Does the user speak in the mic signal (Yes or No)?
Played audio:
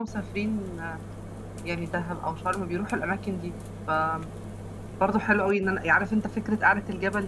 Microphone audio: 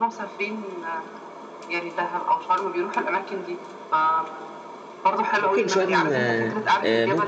Yes